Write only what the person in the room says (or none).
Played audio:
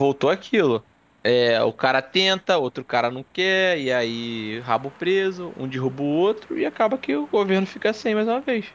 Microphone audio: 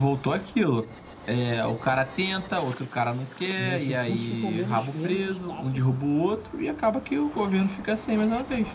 meus recursos ficam menos, menos escassos